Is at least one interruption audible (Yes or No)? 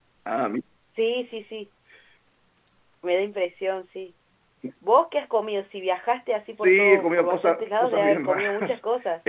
Yes